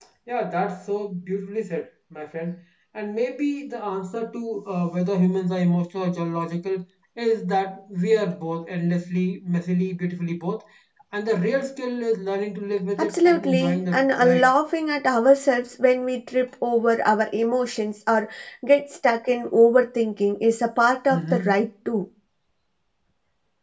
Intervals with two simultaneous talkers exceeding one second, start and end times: 13.0-14.5

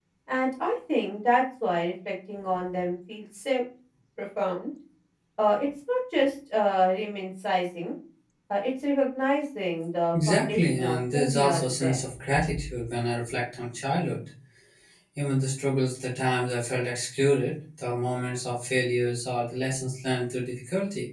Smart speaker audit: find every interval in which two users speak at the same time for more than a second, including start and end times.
10.1-12.0

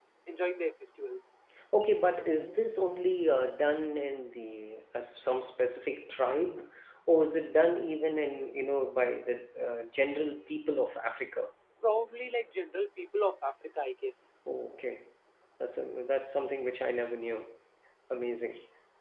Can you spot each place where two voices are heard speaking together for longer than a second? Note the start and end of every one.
none

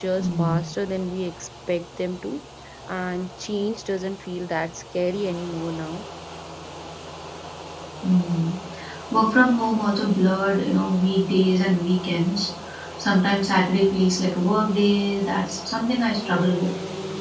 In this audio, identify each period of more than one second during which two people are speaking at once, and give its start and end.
none

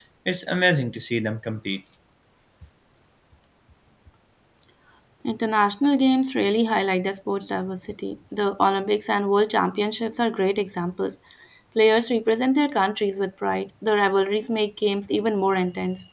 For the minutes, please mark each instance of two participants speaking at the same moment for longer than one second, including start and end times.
none

